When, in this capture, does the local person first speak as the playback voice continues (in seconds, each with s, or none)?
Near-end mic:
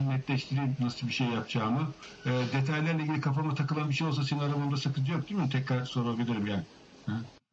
none